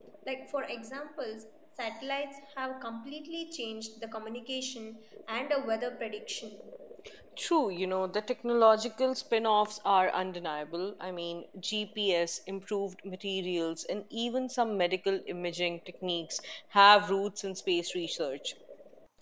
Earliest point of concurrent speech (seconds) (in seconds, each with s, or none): none